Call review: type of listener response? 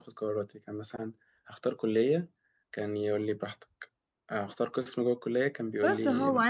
taking over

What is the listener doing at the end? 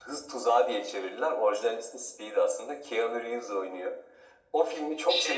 listening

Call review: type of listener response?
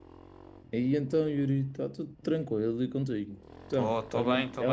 taking over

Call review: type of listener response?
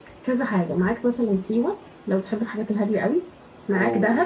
listening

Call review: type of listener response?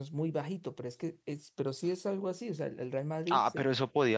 taking over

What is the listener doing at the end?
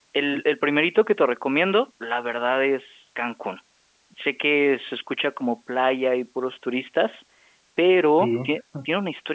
listening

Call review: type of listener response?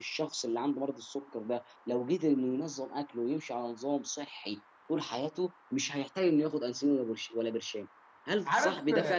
taking over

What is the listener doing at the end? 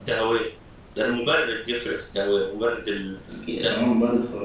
taking over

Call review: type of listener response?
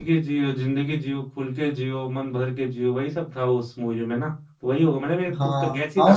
taking over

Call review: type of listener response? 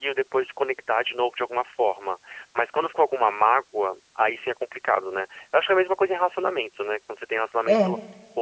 listening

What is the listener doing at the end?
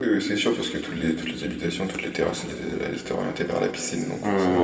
taking over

